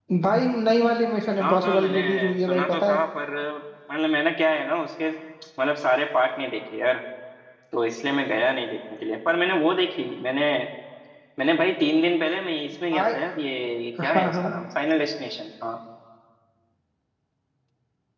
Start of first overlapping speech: 1 s

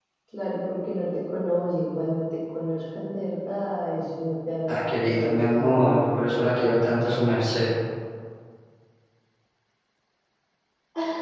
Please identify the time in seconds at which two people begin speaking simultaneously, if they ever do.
5 s

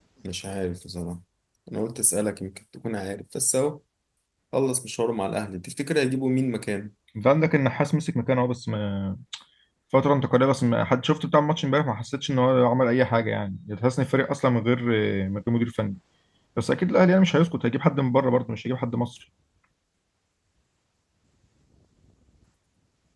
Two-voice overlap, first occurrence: none

